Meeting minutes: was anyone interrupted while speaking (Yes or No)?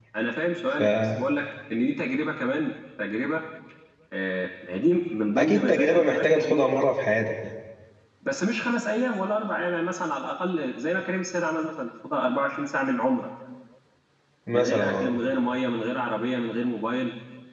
Yes